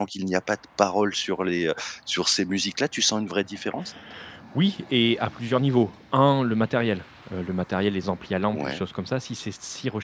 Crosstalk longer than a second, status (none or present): none